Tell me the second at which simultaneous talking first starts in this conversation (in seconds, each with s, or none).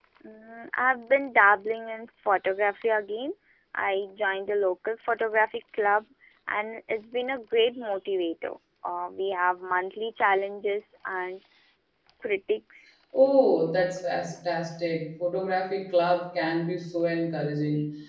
none